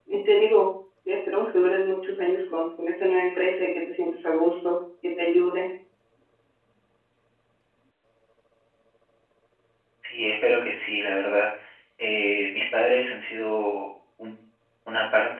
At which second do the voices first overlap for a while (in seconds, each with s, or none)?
none